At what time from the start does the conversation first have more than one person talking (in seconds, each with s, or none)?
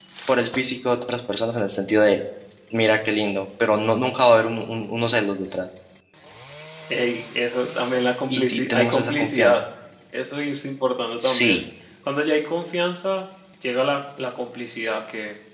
8.3 s